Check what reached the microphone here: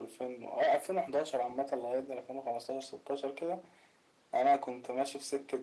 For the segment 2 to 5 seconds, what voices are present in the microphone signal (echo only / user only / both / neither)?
echo only